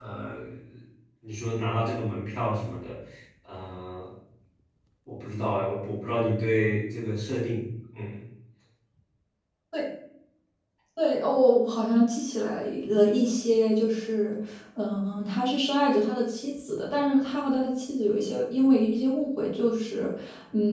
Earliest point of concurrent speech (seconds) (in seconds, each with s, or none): none